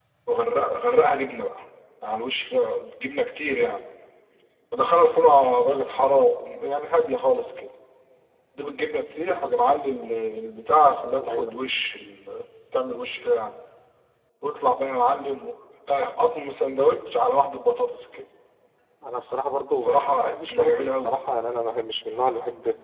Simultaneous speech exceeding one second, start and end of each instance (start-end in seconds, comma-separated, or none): 19.8-21.1